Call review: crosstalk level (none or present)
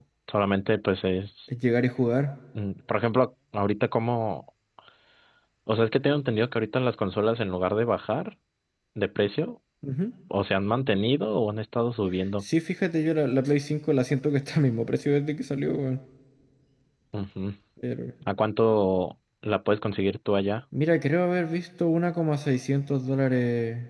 none